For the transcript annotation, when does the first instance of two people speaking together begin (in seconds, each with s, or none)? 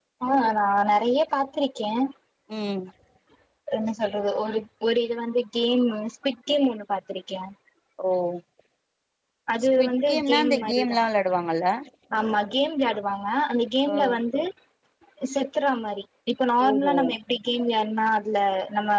9.8 s